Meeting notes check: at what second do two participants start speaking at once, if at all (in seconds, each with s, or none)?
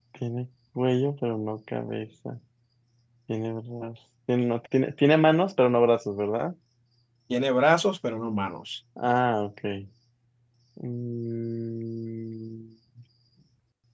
none